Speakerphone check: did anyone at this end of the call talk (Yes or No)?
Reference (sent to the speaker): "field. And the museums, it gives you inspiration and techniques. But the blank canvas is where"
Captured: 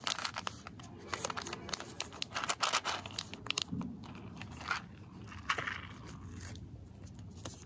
No